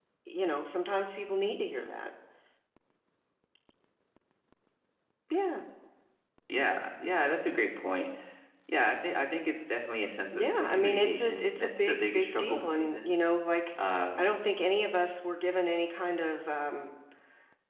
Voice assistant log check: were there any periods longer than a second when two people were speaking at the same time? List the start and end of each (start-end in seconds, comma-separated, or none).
10.3-13.1